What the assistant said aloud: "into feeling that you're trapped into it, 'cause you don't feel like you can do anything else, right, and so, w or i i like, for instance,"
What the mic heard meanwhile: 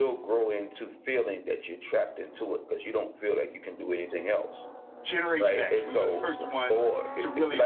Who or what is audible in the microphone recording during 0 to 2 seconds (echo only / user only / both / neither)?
echo only